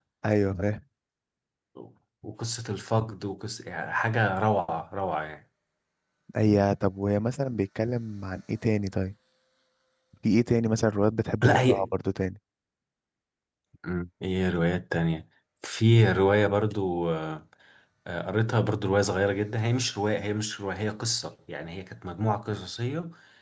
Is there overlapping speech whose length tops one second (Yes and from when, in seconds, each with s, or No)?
No